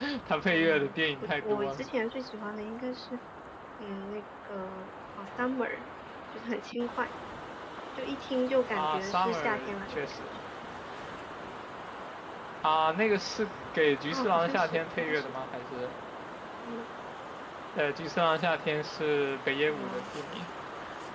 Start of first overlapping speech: 0.5 s

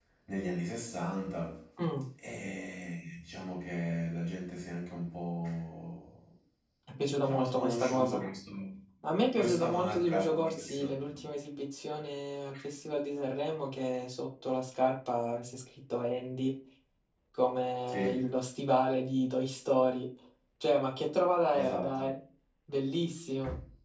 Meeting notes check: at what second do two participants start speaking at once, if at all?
7.0 s

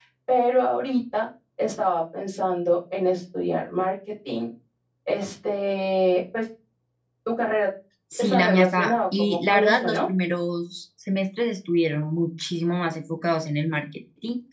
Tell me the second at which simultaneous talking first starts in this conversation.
8.2 s

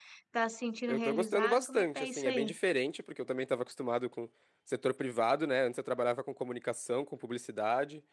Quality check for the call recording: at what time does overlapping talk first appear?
0.9 s

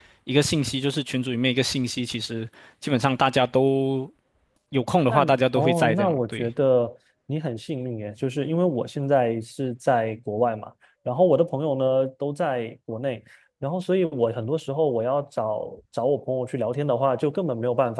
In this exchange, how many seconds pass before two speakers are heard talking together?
5.1 s

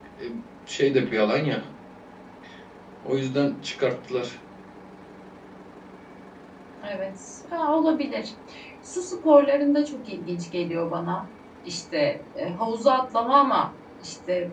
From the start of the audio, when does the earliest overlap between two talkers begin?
none

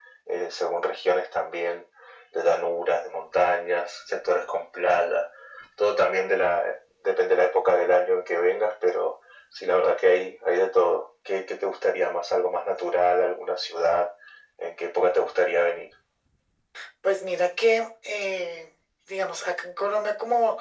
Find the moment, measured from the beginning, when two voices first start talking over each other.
none

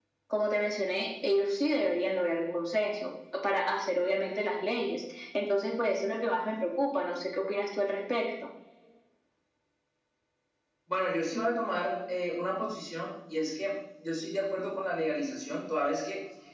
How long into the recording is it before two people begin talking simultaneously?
none

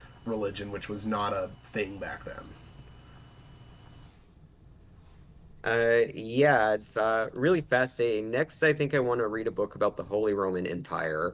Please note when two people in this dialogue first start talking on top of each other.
none

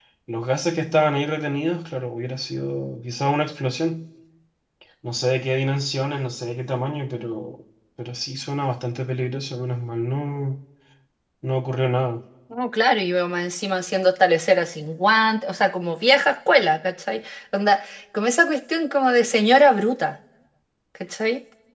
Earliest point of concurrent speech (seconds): none

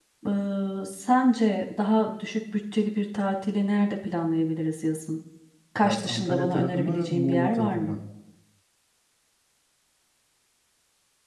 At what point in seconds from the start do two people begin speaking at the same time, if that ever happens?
5.8 s

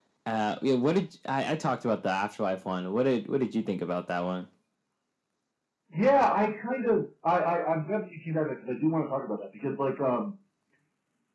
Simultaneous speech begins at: none

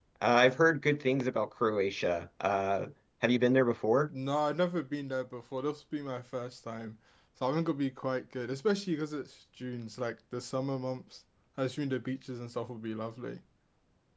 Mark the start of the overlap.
none

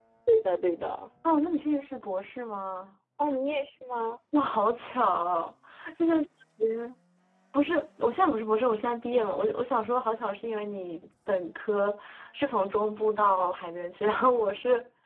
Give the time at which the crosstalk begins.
none

